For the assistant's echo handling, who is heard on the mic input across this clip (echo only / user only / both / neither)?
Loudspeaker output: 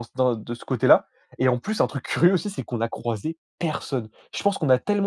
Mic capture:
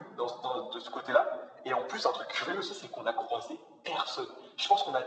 echo only